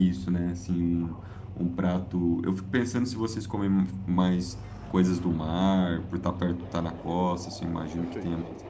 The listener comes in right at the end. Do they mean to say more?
No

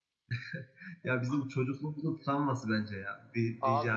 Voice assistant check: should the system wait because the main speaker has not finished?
No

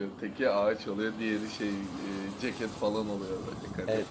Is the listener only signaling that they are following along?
No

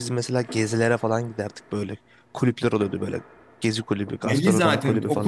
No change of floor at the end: No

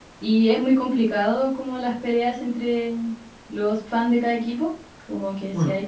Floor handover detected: No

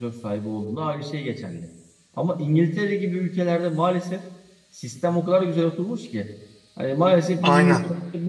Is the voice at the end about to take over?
No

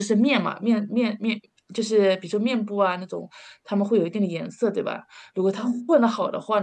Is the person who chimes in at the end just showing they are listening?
Yes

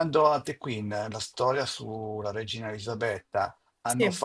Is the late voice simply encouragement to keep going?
Yes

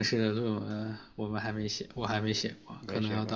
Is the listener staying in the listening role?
No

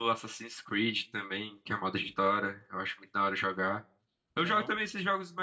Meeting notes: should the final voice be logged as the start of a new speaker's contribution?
No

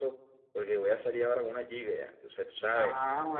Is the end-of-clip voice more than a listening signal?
Yes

